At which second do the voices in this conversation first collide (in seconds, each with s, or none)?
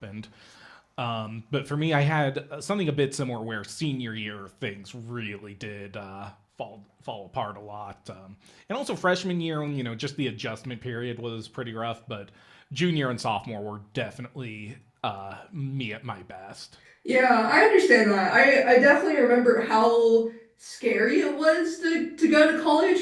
none